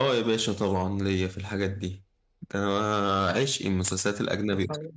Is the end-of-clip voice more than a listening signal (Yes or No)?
No